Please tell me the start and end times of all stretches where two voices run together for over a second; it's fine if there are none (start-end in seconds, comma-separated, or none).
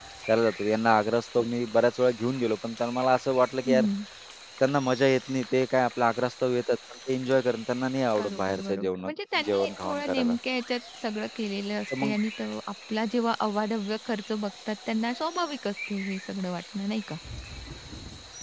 8.2-10.3